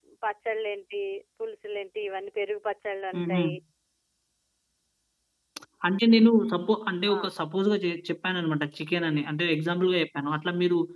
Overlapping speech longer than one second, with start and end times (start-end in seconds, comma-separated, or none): none